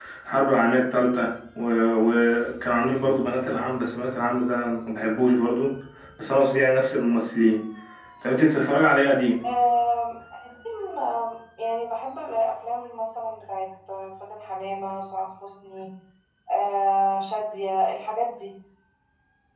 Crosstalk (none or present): none